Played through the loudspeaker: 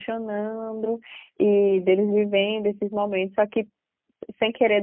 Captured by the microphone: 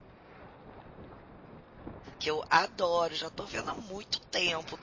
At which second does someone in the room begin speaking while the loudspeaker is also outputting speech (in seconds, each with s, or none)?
2.2 s